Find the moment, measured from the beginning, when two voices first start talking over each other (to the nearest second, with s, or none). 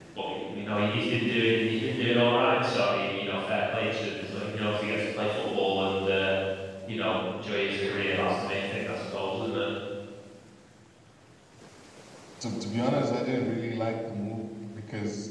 none